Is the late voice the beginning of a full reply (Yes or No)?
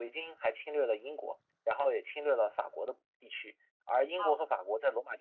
No